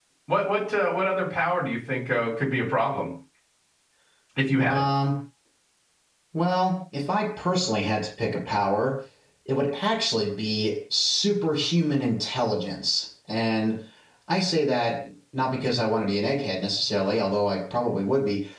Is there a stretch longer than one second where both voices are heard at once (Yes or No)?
No